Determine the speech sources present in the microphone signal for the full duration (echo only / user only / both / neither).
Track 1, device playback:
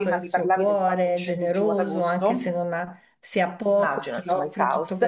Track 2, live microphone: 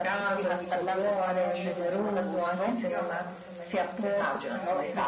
both